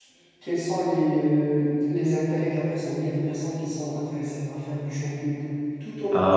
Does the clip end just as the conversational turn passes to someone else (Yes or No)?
No